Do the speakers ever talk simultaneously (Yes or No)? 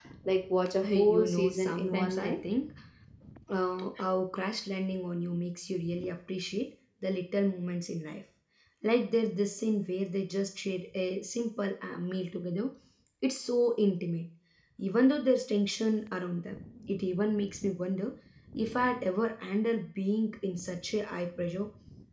Yes